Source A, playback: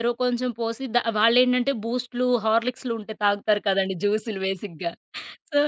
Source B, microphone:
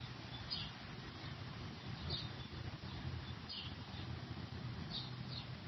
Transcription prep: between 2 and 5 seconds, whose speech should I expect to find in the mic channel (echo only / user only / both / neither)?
neither